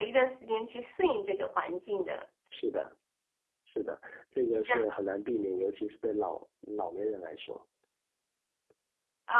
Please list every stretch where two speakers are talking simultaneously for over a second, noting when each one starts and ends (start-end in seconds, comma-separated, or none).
none